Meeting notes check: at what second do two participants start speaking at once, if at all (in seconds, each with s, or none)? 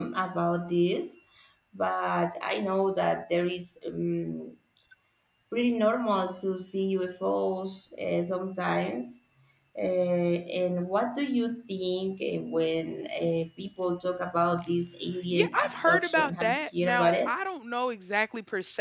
15.3 s